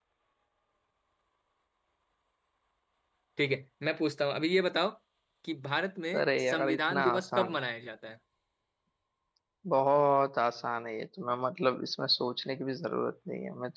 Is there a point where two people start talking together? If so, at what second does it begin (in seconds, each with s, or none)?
6.2 s